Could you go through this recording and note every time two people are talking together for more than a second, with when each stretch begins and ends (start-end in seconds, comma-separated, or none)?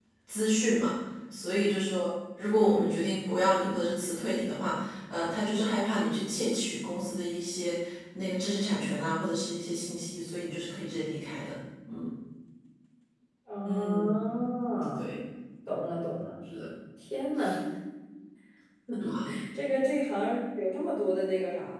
none